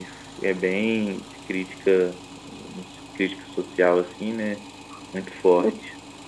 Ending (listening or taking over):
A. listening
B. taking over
B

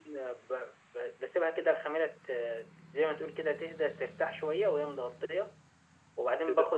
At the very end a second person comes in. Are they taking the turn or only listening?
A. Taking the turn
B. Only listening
A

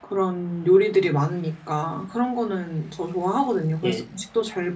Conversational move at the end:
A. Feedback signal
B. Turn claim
A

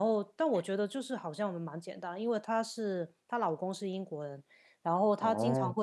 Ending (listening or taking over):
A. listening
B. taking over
A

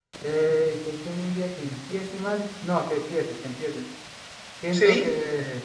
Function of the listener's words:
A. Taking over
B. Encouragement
B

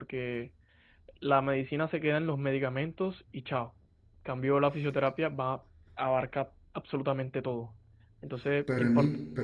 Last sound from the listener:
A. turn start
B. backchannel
A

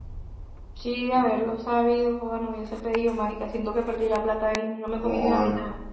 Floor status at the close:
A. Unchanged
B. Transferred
B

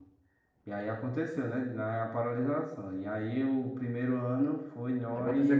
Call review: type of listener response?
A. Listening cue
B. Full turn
B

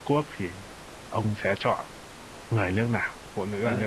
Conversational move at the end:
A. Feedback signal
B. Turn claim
B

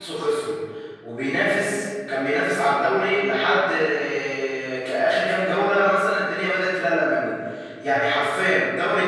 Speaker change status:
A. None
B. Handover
A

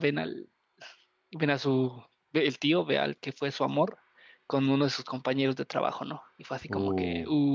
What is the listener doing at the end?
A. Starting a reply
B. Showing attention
A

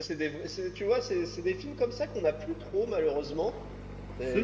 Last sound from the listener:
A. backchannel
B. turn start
A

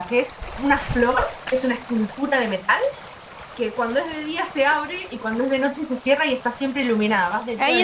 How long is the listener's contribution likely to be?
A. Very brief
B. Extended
B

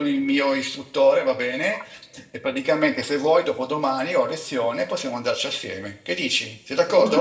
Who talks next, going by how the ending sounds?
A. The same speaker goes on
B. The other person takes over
B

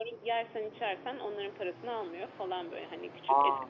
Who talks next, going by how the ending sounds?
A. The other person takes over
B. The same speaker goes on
B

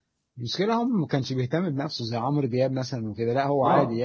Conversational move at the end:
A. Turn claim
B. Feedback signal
A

